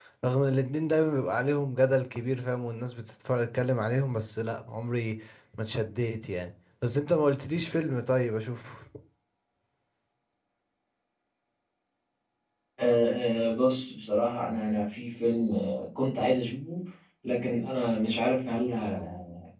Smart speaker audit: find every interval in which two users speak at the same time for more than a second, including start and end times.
none

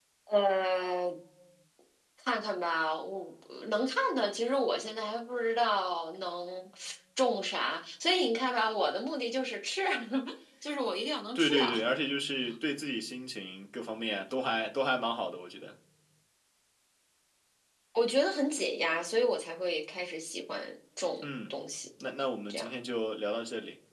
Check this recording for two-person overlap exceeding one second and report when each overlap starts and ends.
none

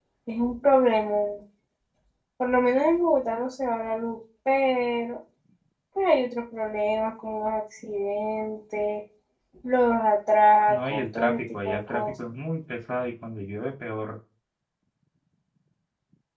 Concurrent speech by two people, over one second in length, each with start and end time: 10.7-12.1

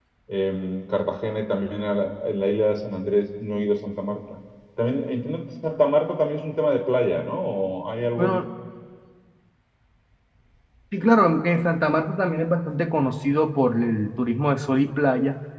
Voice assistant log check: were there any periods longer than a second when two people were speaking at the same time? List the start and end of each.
none

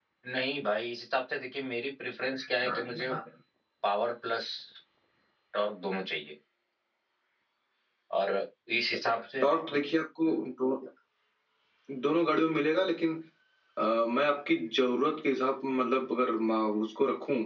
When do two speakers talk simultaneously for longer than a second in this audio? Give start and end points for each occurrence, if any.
none

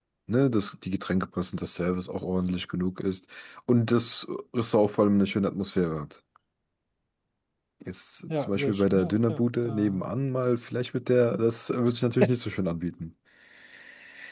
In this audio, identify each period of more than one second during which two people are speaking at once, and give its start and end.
8.3-10.1

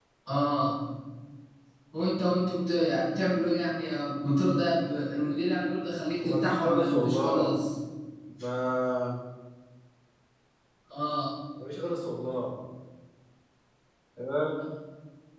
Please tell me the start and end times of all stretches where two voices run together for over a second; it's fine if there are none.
6.2-7.5

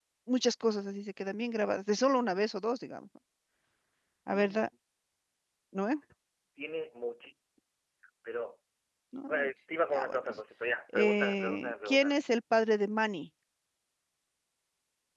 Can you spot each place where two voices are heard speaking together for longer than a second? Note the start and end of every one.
10.9-12.2

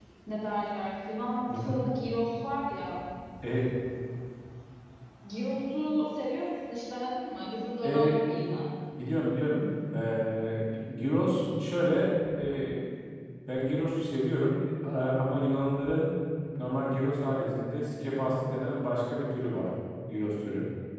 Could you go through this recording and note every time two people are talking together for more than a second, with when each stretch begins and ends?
none

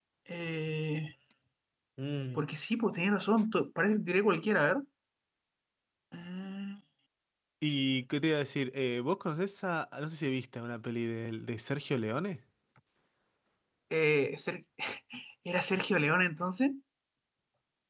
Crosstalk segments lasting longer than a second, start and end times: none

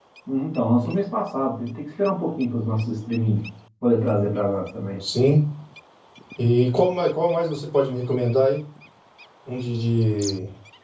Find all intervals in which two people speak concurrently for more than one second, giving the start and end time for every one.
none

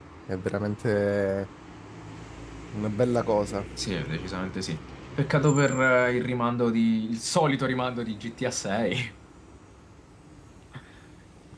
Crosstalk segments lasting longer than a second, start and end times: none

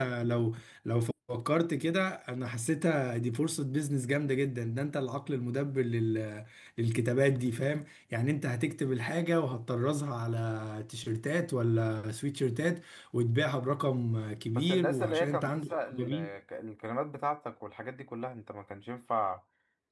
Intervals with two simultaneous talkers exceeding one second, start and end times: 14.5-16.1

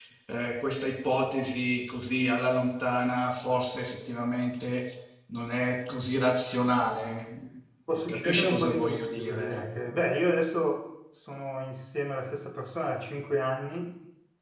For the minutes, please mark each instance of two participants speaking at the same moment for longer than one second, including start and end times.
8.1-9.6

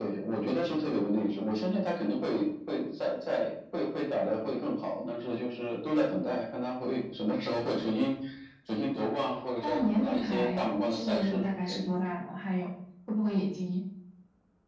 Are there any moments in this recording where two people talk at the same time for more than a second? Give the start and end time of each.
9.6-11.8

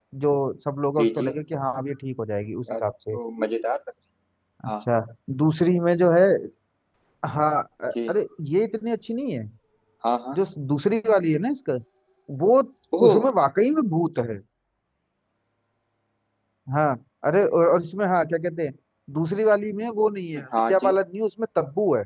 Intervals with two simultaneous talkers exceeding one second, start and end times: none

